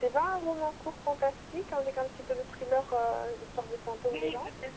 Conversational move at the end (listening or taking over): taking over